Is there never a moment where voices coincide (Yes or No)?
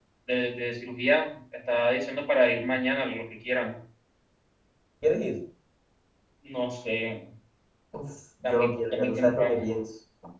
No